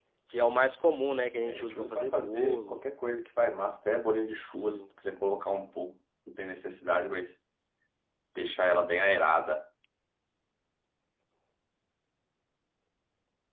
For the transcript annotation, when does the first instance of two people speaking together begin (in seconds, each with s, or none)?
1.4 s